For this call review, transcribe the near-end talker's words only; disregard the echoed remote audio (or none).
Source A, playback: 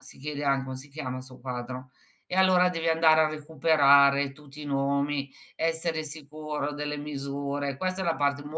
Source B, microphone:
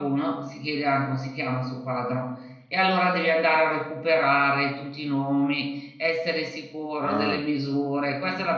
Ah.